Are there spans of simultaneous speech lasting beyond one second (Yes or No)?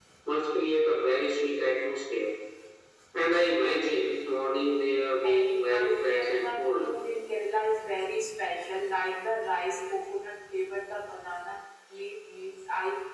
Yes